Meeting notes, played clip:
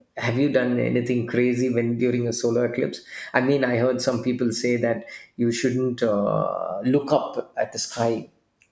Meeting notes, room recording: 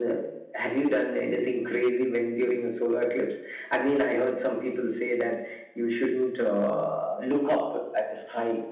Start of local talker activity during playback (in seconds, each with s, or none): none